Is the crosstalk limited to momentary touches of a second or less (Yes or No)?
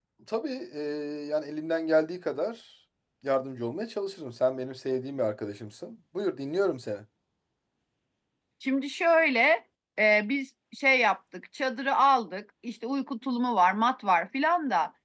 Yes